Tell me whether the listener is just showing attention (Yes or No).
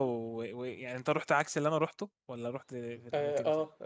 No